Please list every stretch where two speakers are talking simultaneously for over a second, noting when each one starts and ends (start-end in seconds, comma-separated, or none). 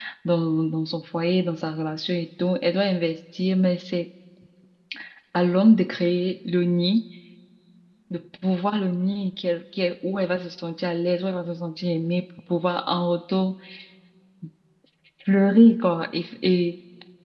none